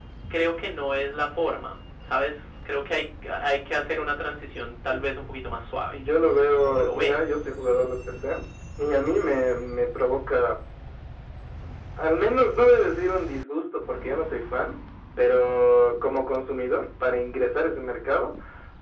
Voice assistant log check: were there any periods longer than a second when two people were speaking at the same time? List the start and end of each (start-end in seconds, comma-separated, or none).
5.9-7.3